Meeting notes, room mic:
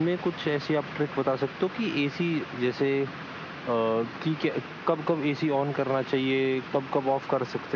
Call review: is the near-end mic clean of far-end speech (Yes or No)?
Yes